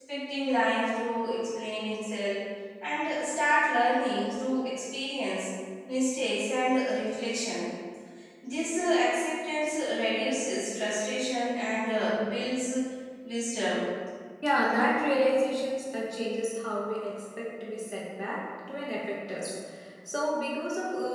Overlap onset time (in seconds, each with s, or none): none